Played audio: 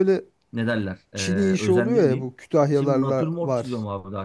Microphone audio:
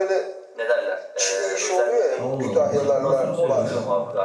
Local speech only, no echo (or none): Allah Allah. Nasıl, nasıl bir şey o ya?